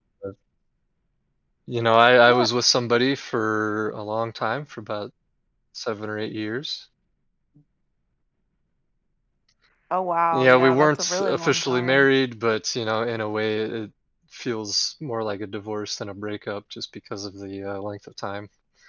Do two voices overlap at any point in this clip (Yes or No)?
Yes